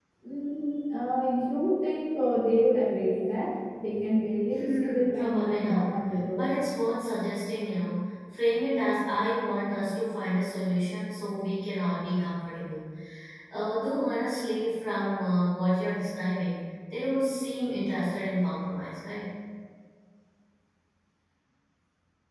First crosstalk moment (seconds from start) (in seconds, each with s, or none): 4.5 s